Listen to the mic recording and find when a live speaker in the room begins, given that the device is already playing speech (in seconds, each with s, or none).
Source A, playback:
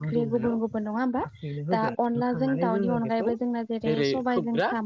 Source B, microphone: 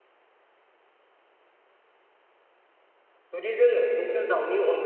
3.4 s